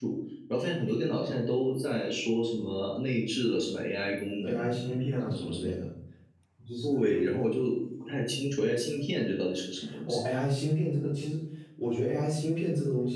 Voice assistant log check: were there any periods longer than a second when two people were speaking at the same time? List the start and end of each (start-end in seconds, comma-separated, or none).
none